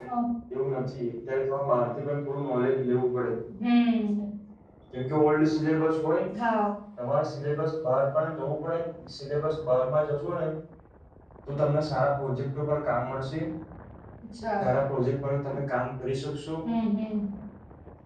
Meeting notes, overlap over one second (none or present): none